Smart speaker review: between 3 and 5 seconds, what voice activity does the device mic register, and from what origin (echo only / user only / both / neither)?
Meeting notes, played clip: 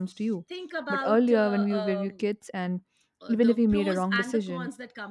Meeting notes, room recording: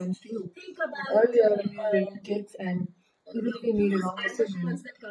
echo only